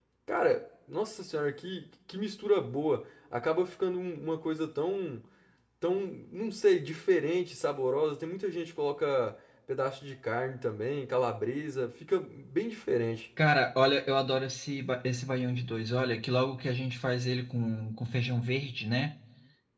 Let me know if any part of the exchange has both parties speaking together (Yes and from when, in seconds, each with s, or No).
No